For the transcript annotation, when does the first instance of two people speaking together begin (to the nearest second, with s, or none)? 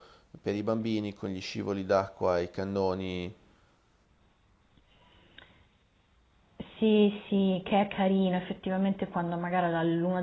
none